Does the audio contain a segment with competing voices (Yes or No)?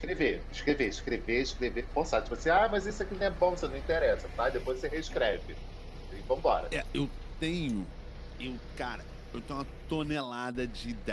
No